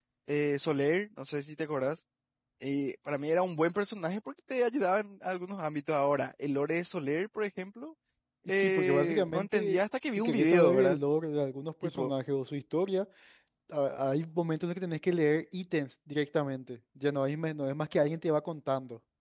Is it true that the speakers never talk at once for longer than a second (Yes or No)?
No